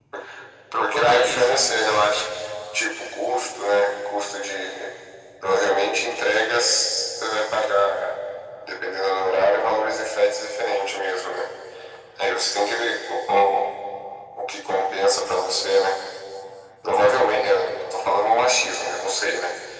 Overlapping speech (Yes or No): Yes